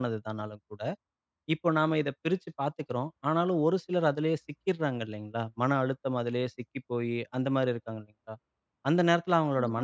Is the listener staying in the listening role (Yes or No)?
Yes